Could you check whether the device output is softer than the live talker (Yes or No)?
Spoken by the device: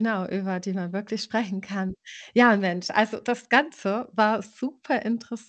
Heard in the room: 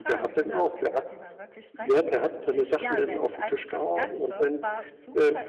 Yes